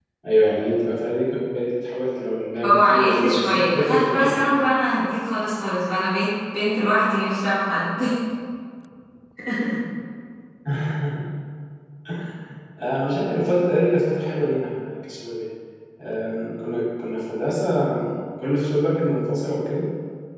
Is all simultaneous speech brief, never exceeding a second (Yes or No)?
No